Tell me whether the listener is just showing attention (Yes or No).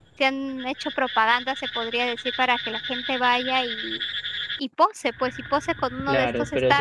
No